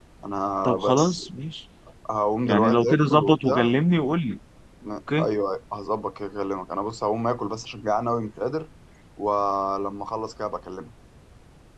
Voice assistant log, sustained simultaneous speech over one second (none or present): present